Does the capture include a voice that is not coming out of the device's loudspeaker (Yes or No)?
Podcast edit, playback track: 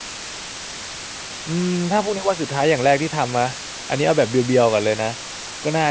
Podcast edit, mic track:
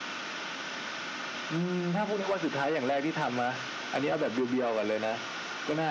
No